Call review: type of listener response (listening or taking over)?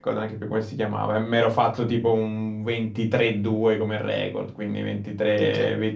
listening